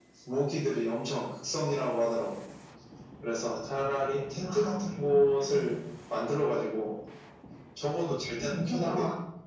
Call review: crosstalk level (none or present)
present